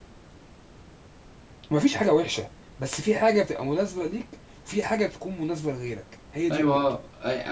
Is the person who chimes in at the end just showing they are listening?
No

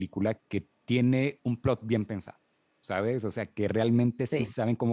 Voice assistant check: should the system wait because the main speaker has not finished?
Yes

